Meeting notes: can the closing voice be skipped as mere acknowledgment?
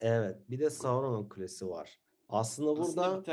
No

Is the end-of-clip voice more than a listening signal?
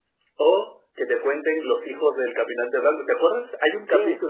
No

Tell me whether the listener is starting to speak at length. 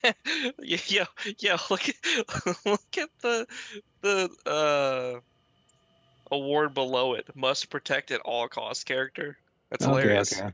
Yes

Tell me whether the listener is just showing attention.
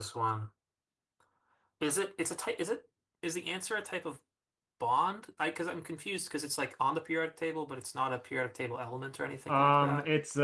No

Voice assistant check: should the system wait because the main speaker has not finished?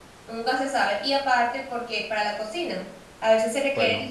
Yes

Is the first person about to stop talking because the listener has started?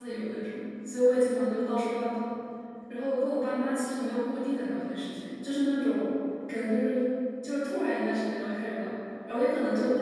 No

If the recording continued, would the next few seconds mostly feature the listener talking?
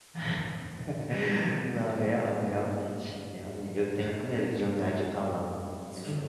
Yes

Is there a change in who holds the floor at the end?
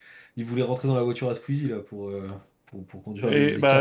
Yes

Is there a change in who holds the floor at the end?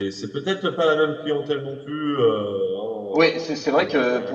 Yes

